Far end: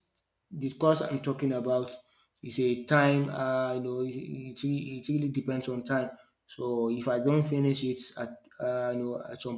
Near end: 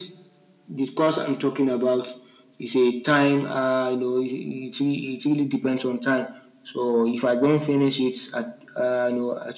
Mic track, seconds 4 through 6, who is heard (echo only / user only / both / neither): echo only